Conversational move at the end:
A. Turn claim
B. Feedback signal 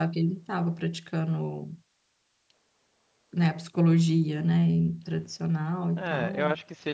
A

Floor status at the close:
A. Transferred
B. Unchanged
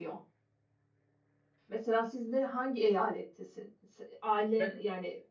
B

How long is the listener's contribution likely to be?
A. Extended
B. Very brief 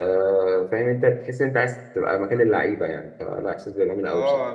A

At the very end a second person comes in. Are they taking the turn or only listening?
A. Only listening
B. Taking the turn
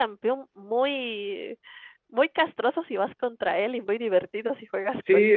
B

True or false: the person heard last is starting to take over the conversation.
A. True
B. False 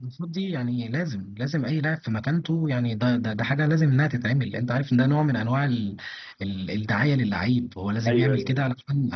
B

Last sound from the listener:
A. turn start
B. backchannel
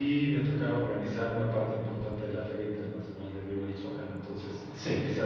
B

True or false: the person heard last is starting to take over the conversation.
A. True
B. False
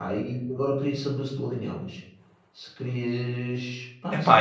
A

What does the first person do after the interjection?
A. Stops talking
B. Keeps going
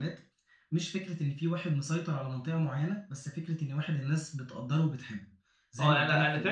A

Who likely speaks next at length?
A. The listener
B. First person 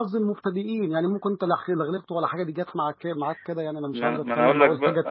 A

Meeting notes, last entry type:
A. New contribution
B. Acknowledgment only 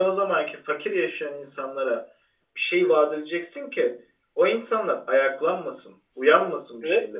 B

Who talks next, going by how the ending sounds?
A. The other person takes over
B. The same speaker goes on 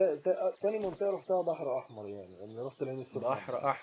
A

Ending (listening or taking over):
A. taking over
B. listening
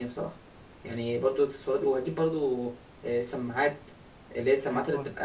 B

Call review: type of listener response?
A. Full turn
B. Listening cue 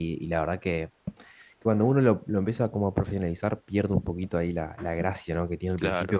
B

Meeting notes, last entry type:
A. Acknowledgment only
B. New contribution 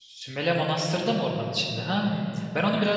A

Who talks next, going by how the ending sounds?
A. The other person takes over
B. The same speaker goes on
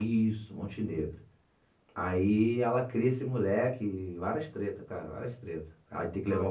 B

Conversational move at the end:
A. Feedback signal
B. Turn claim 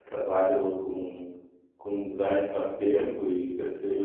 A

